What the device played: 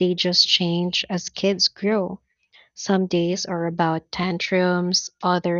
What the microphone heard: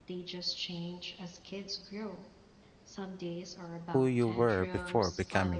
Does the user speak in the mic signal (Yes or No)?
Yes